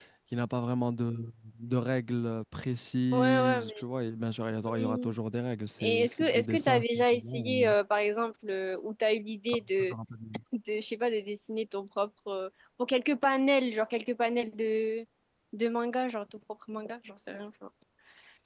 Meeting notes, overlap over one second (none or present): present